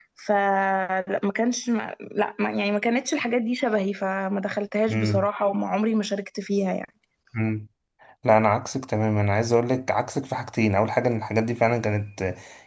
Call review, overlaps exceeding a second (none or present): none